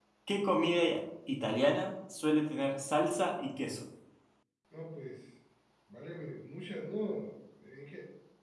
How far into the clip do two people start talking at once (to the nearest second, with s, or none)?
none